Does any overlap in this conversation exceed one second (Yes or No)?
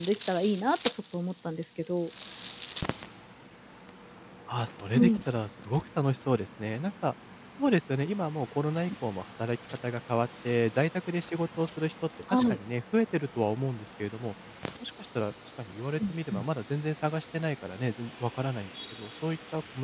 No